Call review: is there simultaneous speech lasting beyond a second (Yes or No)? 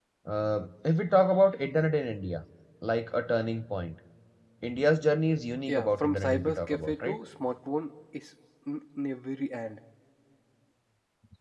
Yes